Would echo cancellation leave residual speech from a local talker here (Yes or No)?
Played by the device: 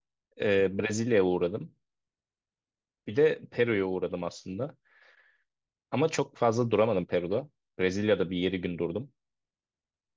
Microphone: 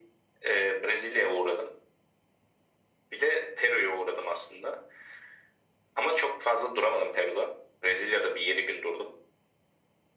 No